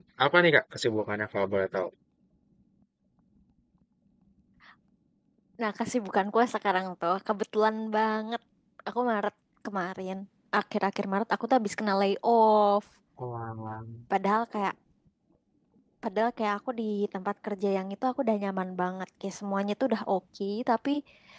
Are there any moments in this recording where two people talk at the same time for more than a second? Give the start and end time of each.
none

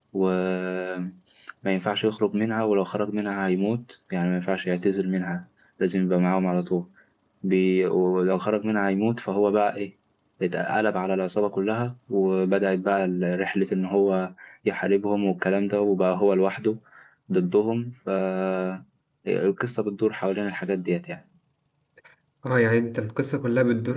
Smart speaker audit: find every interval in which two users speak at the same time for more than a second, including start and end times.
none

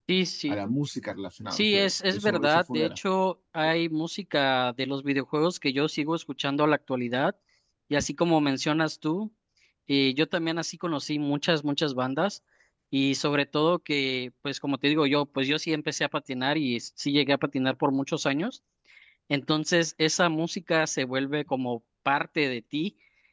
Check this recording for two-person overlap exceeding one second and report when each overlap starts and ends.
1.5-3.0

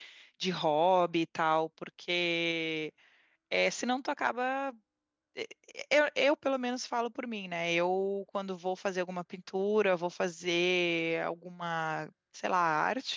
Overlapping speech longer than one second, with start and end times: none

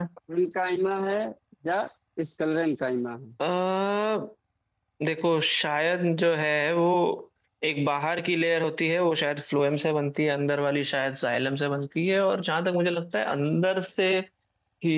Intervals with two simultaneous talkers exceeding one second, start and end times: none

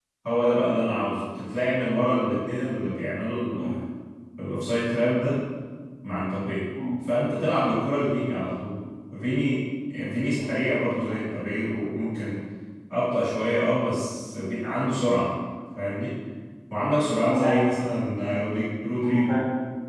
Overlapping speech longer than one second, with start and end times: none

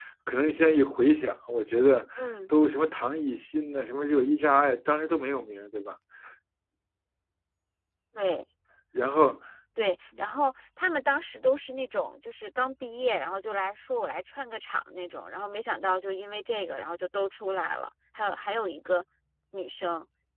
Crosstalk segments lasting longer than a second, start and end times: none

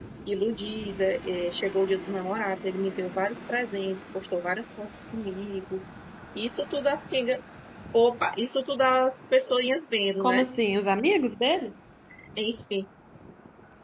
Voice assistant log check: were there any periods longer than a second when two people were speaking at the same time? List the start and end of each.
none

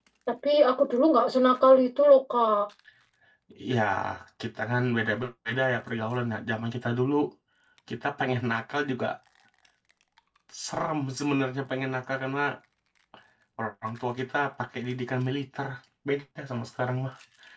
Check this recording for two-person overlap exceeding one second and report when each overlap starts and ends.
none

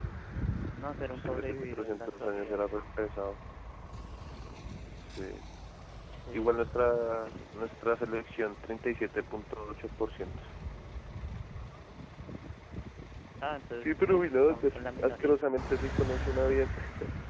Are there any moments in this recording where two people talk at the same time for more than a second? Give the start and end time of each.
1.1-2.6, 13.8-15.4

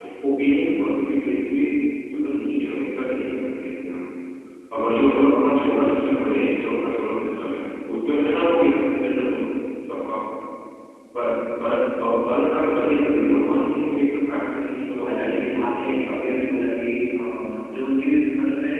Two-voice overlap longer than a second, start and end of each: 15.1-16.3

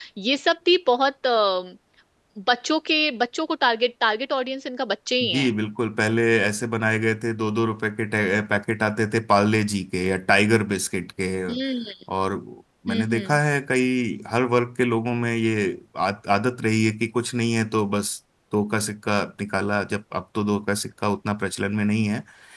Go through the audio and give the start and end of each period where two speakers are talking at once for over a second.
none

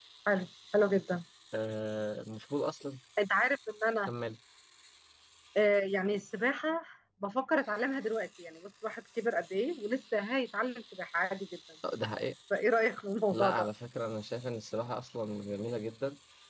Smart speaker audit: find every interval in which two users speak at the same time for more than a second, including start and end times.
none

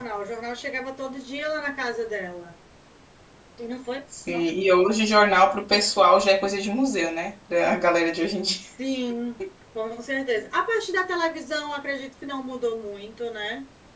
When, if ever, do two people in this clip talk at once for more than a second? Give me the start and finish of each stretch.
none

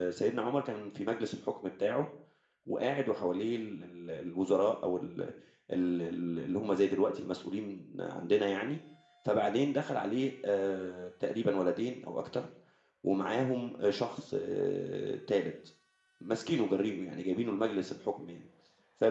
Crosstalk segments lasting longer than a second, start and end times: none

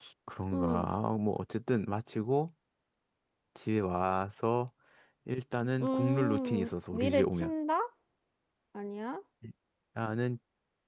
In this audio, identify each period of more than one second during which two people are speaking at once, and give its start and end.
5.8-7.5

